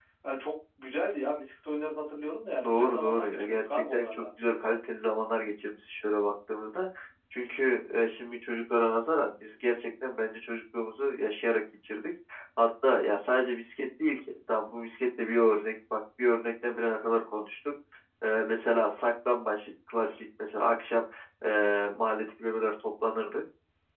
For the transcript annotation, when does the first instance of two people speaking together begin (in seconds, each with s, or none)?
2.6 s